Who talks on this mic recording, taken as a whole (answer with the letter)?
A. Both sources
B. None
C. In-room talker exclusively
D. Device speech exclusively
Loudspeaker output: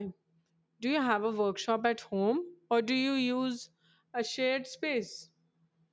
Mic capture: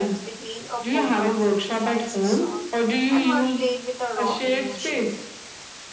A